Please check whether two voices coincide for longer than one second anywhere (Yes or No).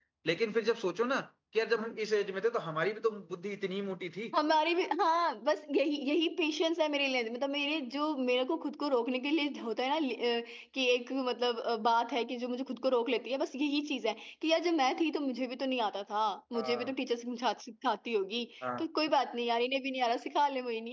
No